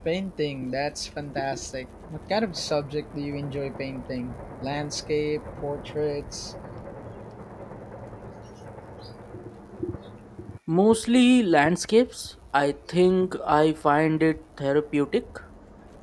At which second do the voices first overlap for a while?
none

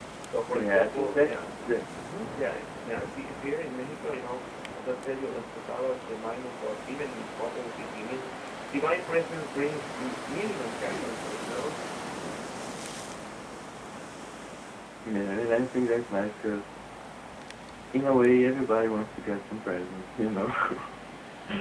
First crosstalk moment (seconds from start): 1 s

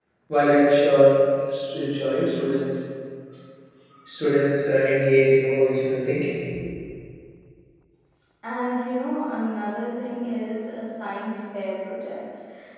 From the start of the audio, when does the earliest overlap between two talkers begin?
none

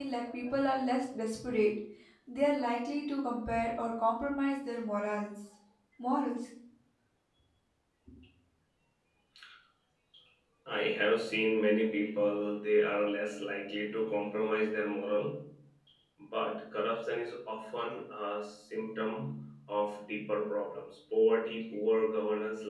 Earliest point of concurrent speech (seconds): none

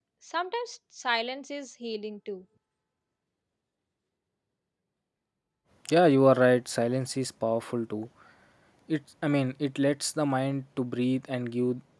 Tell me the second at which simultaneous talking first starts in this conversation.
none

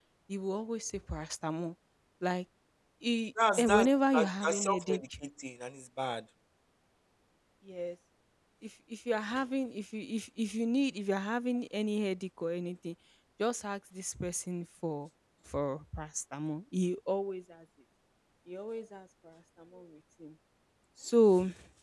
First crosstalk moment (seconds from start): 4 s

